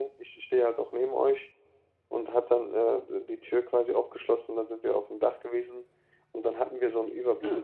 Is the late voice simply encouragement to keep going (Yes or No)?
Yes